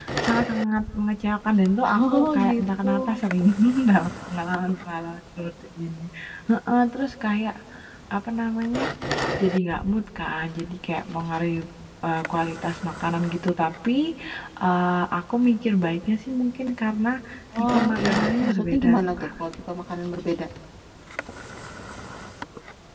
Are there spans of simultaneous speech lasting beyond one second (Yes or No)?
Yes